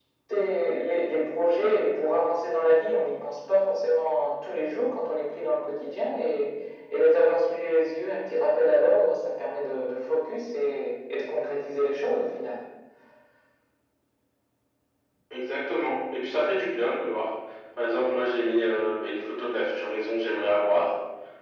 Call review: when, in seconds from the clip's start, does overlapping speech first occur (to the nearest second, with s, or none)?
none